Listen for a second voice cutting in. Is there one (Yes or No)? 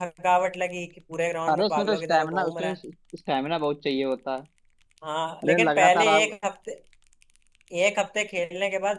Yes